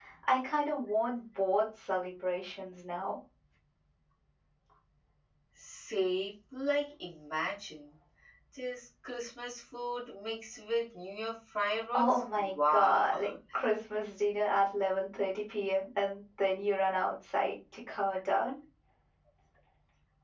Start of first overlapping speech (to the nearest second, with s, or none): 12 s